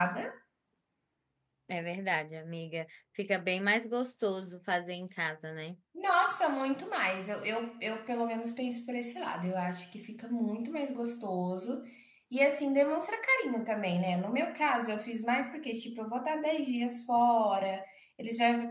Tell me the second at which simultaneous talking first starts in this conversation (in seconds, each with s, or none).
none